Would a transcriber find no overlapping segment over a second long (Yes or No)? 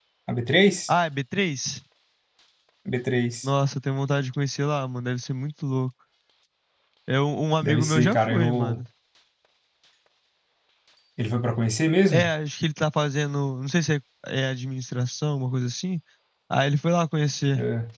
No